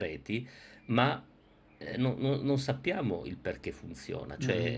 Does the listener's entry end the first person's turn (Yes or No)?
Yes